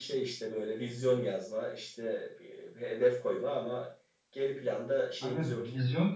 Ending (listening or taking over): taking over